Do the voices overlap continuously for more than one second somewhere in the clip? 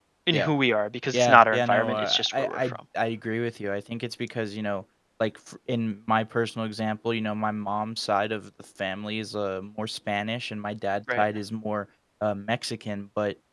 Yes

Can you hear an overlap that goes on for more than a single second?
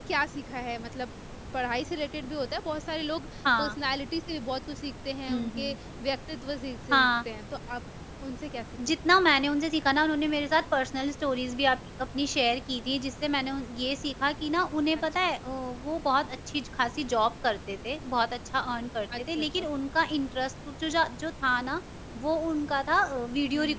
No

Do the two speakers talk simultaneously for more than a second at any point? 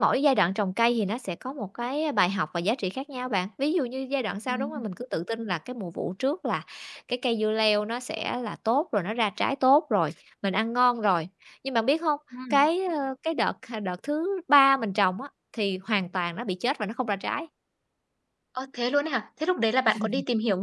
No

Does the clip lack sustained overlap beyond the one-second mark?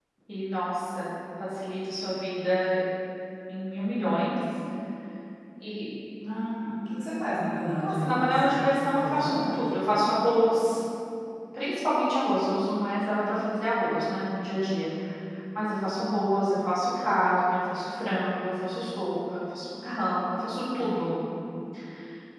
No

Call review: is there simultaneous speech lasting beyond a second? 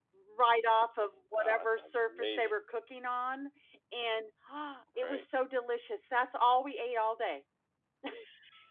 Yes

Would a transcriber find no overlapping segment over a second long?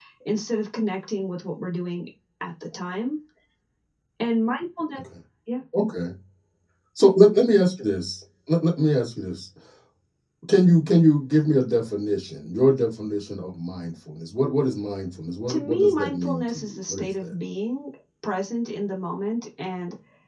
No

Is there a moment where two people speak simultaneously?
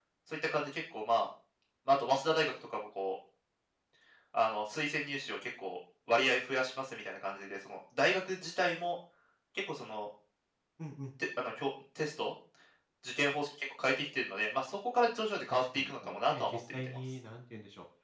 Yes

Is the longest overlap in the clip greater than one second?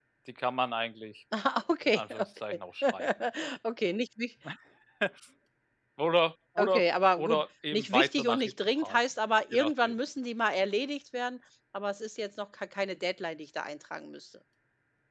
Yes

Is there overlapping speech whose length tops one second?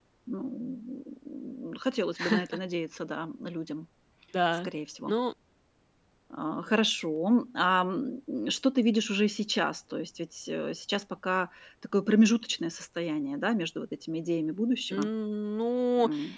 No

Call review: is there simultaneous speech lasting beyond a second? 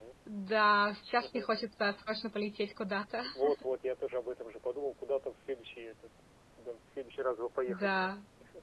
No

